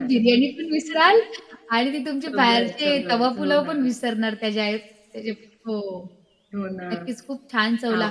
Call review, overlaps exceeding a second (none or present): present